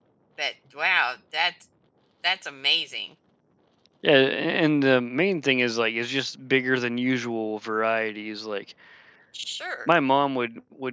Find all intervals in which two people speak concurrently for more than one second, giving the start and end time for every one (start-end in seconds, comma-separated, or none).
none